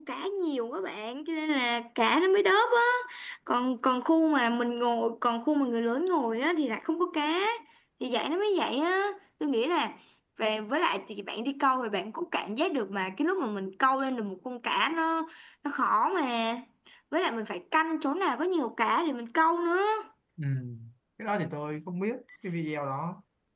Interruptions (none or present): none